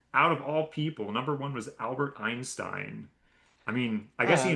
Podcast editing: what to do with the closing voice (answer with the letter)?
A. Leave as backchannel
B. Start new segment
A